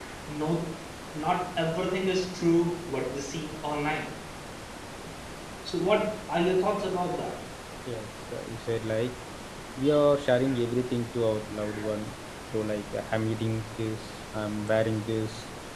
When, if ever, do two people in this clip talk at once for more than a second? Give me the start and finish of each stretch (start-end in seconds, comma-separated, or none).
none